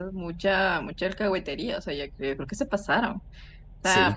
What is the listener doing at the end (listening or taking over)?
taking over